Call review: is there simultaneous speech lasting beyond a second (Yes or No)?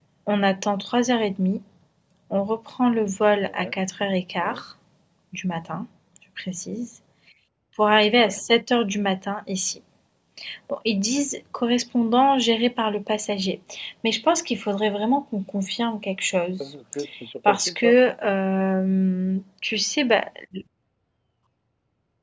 No